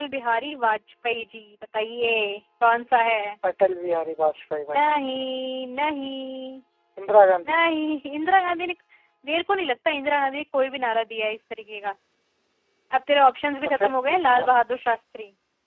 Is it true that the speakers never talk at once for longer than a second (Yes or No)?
Yes